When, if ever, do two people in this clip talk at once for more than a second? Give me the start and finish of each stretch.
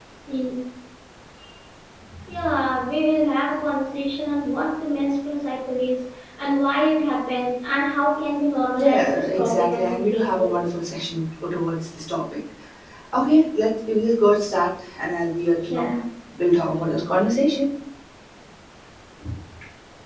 8.8-10.6

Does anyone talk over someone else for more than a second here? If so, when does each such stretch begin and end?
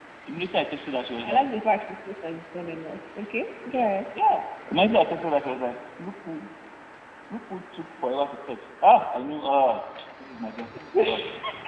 none

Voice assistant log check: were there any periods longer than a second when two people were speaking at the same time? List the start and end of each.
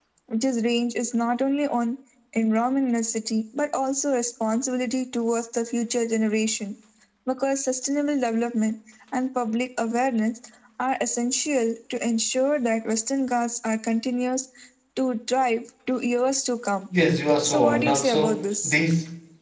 17.4-18.8

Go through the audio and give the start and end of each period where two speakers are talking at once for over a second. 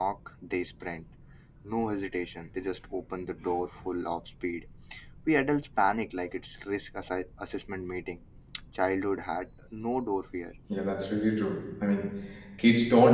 none

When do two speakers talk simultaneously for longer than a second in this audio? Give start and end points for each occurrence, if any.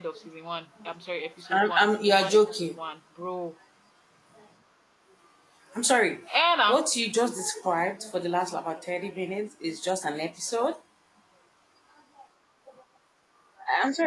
1.5-2.8

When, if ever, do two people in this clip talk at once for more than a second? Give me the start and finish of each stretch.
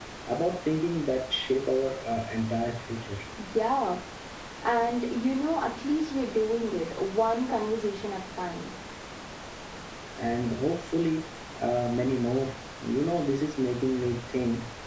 none

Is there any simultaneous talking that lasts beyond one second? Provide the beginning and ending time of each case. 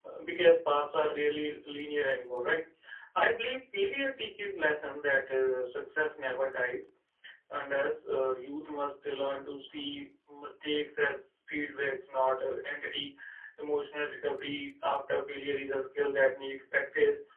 none

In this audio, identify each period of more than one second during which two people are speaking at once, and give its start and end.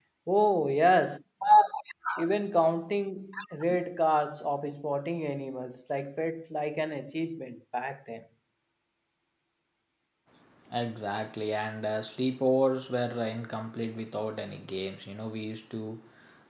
none

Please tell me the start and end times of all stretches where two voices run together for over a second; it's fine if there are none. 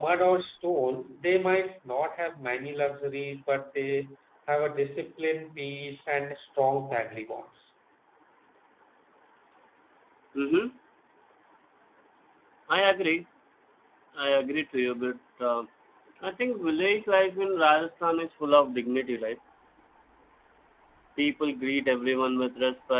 none

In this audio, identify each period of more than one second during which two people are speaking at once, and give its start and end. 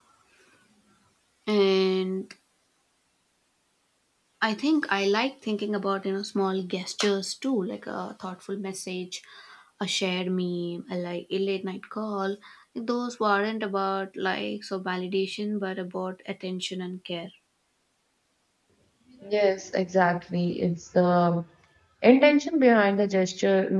none

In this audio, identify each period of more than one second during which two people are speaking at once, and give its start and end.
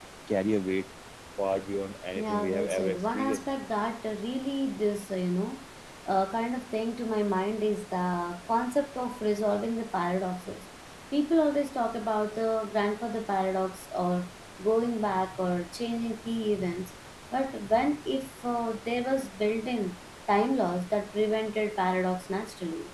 2.1-3.4

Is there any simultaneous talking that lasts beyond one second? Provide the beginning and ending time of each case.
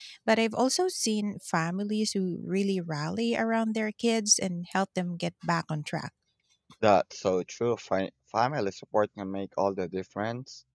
none

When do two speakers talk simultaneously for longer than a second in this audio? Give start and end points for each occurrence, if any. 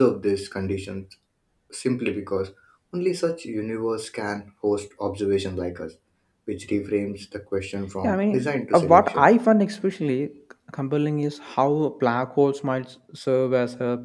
8.0-9.3

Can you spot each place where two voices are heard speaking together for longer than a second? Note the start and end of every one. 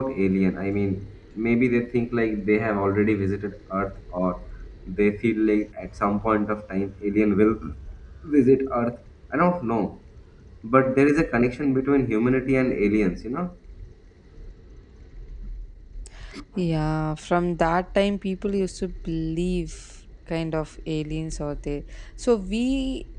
none

